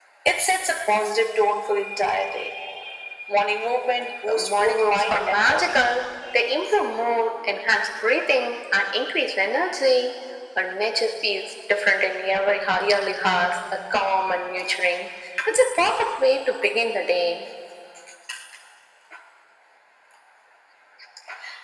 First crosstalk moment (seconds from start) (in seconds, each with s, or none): 4.3 s